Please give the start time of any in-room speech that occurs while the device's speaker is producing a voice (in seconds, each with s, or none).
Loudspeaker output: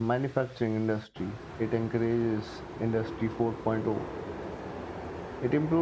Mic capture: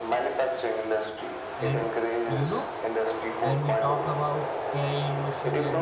1.6 s